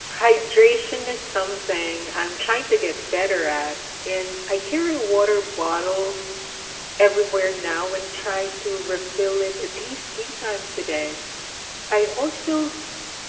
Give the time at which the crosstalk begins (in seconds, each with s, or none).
none